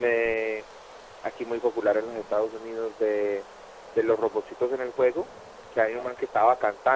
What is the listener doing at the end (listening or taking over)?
listening